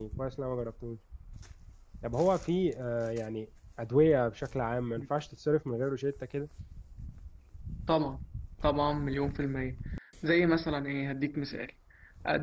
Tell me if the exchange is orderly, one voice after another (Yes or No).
Yes